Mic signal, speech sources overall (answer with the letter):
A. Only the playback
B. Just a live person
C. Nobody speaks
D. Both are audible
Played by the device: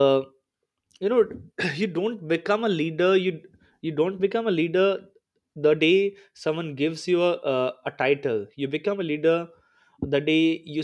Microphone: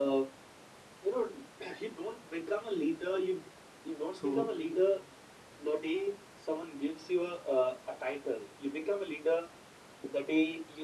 D